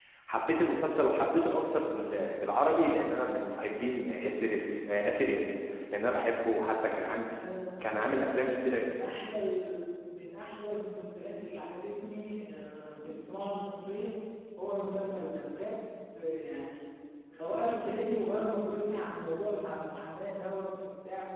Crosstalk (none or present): none